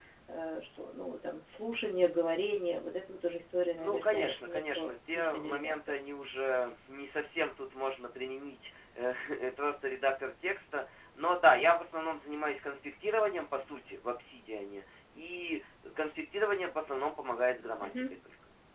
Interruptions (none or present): present